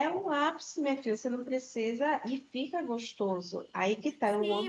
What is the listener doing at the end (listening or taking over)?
taking over